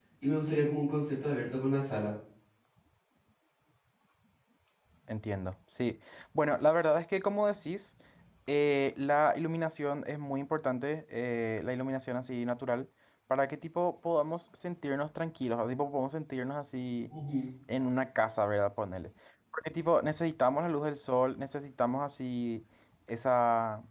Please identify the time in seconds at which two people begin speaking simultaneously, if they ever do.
none

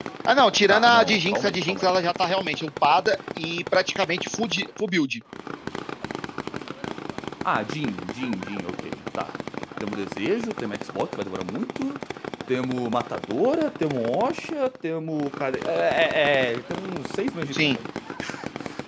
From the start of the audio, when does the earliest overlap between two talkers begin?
0.7 s

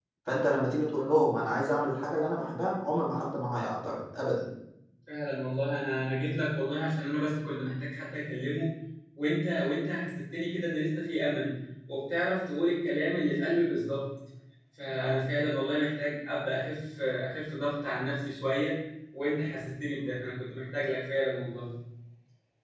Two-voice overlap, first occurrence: none

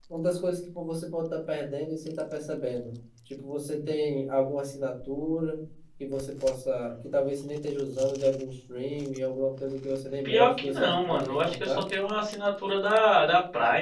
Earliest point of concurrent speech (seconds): 10.2 s

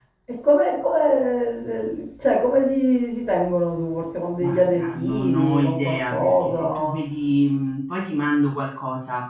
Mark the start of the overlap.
4.4 s

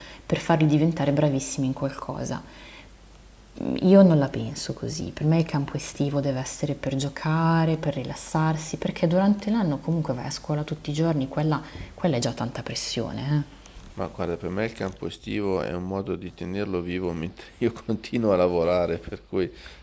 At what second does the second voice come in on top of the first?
none

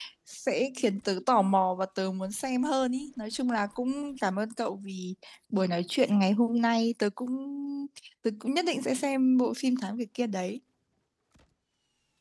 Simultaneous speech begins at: none

